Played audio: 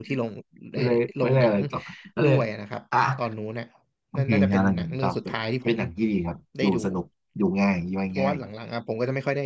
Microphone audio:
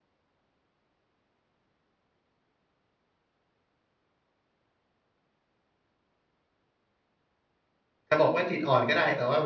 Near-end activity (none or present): present